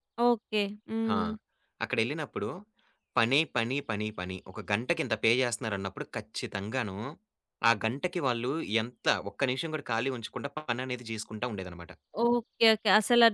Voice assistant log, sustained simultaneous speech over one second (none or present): none